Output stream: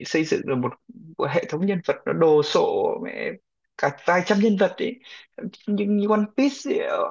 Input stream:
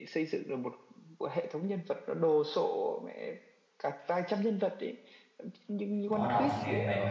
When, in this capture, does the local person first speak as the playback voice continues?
6 s

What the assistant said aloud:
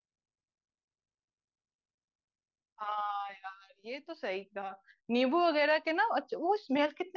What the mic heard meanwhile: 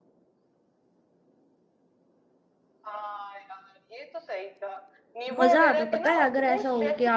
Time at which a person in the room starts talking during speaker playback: 5 s

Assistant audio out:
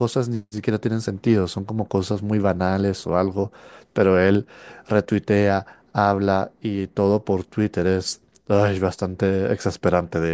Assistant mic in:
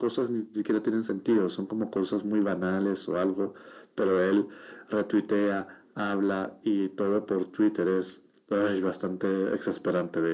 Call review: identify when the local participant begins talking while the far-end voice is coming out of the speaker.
none

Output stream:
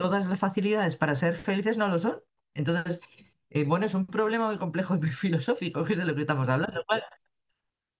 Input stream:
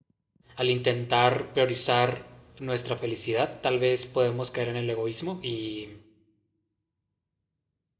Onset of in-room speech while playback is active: 1 s

